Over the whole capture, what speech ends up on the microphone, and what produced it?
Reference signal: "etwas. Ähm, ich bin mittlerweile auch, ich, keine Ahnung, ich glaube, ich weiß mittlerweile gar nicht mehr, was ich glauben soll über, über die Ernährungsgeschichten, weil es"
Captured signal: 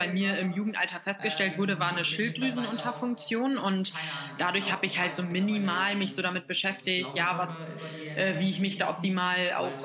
both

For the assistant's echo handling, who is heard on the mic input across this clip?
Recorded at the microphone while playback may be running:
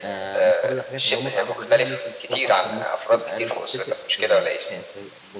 both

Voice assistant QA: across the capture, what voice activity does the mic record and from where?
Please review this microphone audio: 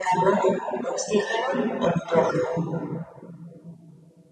echo only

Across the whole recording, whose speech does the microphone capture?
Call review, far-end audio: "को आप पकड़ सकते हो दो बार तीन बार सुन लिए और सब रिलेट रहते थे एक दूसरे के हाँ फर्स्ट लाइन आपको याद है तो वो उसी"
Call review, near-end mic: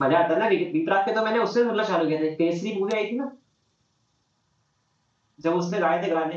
user only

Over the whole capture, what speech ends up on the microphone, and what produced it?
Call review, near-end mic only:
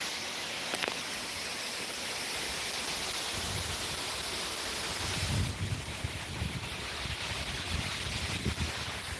neither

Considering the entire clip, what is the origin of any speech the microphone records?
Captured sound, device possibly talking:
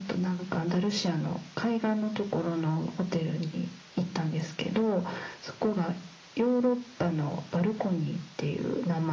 echo only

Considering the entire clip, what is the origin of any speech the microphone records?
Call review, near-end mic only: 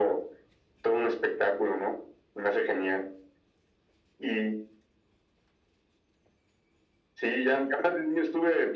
echo only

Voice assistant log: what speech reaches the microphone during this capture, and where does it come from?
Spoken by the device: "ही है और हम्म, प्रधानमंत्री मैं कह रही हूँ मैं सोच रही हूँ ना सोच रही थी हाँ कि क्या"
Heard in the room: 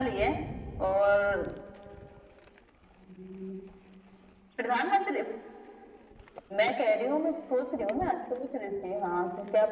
echo only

